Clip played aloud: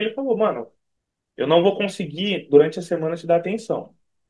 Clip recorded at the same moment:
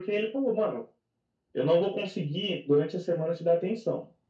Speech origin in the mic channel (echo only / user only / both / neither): echo only